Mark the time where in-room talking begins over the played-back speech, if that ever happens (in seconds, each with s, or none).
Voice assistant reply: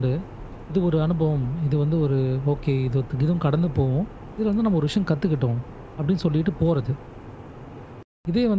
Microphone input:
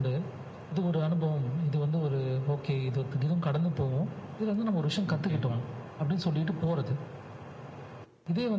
5.1 s